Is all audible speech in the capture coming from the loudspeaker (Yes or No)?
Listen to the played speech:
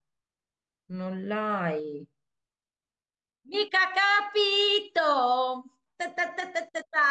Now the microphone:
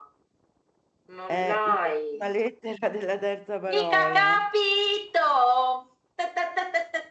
No